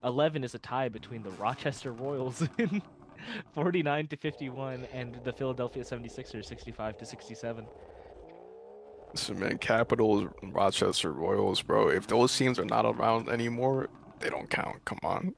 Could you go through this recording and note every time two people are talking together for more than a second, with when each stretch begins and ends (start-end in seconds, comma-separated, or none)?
none